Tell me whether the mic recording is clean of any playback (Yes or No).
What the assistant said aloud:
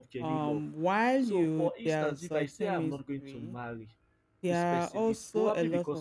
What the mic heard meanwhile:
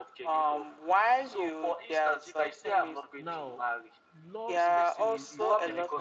No